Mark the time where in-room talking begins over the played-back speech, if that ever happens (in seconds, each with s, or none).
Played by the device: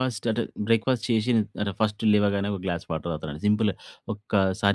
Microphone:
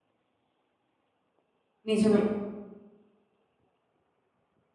1.9 s